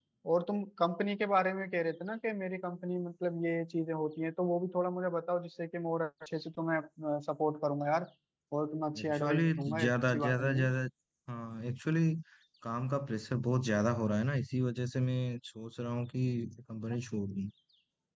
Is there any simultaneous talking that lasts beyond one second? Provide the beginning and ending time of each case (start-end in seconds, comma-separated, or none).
9.0-10.7